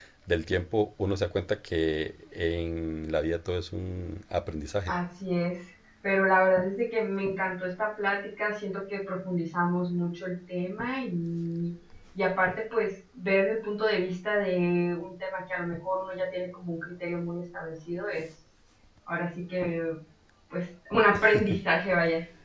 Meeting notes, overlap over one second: none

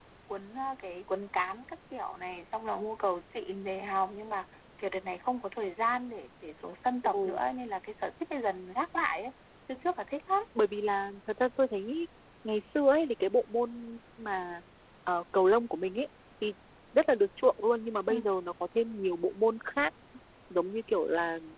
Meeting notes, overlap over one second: none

